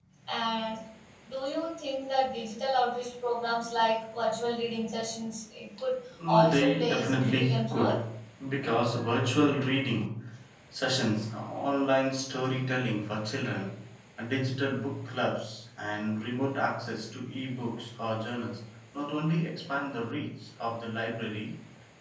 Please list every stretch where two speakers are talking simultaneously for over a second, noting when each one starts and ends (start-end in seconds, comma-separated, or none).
6.3-7.9